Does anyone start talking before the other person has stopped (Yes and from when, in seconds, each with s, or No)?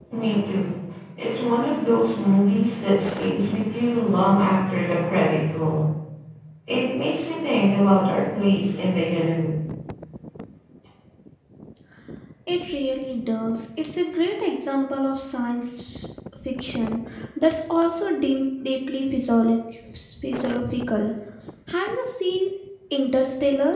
No